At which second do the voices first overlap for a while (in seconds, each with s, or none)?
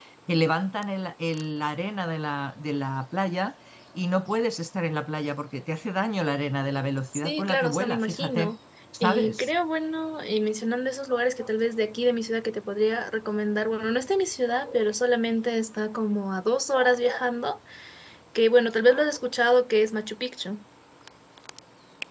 7.2 s